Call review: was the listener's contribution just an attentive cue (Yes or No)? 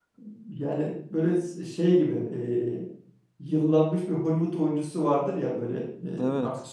Yes